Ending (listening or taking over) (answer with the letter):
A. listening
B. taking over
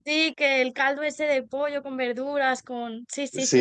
B